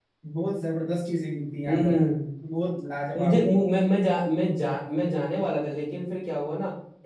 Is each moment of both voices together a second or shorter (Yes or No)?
Yes